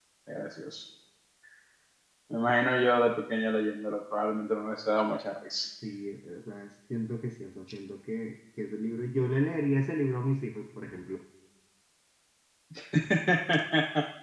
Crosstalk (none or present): none